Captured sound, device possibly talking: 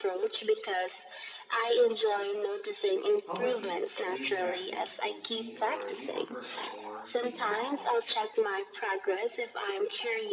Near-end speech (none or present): present